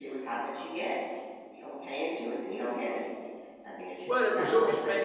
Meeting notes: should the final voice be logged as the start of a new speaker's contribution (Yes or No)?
Yes